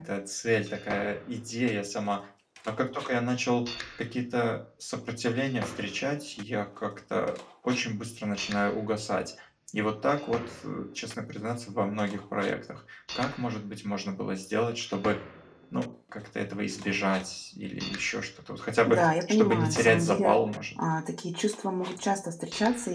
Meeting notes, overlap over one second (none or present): present